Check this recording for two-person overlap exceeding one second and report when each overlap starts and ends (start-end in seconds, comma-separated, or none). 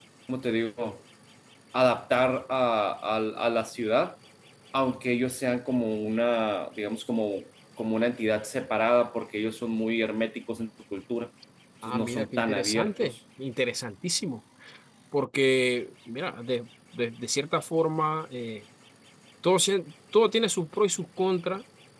11.8-13.1